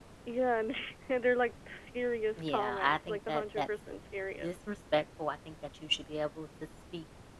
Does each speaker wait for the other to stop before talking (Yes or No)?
No